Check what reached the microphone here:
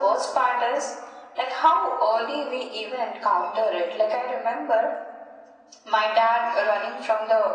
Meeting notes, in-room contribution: none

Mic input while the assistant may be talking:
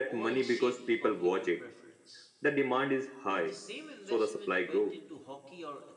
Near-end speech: present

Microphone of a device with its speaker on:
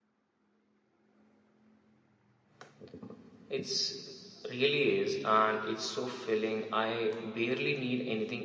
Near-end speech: present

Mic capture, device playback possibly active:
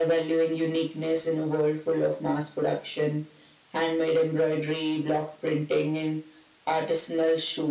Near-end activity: none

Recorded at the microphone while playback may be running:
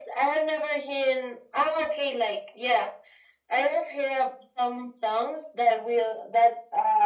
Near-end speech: none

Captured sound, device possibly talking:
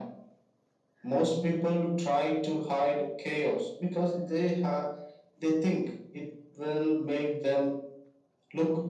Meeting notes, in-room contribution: none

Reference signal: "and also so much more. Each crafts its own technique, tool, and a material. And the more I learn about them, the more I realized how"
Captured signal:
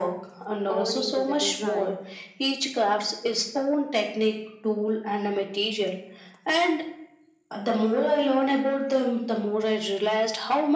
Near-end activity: present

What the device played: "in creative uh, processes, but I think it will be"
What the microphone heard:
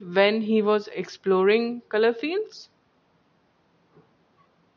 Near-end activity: present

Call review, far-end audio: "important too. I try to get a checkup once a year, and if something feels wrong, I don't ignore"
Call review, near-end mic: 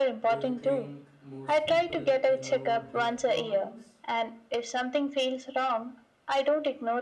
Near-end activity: present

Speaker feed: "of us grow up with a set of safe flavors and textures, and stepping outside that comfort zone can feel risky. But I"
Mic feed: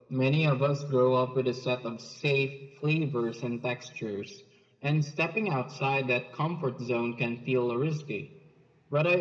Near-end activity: none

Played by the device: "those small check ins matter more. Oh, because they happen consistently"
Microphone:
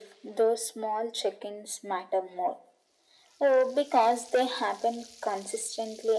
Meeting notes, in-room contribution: none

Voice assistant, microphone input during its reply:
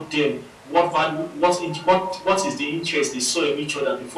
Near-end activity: none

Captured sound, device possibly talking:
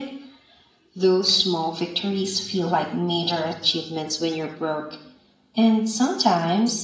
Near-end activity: none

